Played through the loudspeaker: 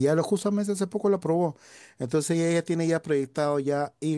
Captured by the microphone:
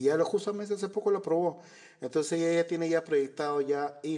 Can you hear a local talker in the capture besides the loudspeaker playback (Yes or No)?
No